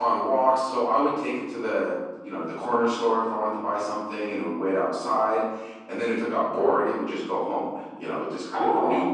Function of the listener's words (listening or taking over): listening